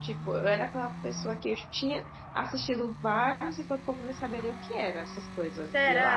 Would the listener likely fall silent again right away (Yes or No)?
No